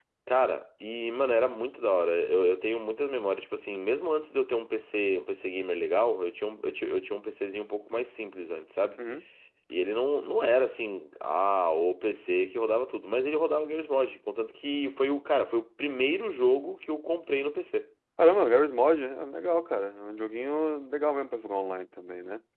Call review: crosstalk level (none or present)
none